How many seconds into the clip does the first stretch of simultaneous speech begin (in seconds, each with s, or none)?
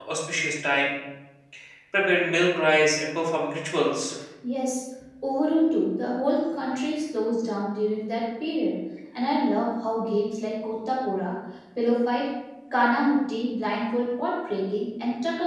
none